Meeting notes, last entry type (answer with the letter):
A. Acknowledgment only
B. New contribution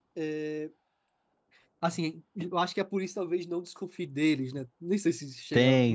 B